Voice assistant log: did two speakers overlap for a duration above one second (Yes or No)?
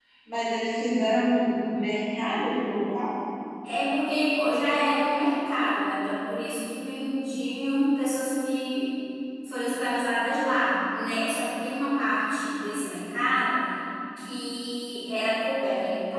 No